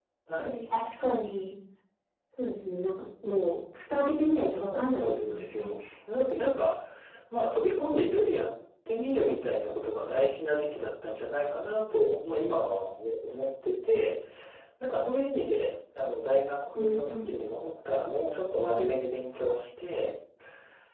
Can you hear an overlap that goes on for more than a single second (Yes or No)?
Yes